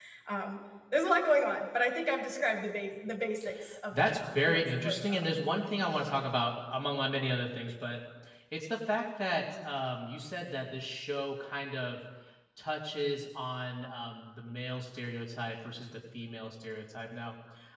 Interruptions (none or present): present